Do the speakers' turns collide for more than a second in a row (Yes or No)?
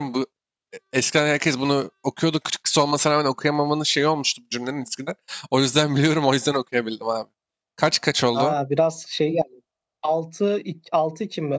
No